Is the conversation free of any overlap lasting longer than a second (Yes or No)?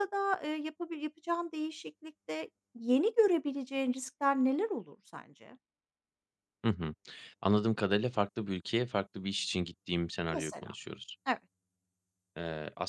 Yes